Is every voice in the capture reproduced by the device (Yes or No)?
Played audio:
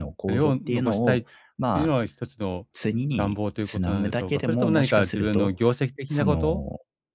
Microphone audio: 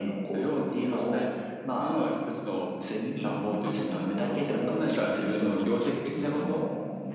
No